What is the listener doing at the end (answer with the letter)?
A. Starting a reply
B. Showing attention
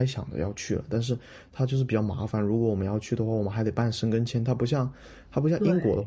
B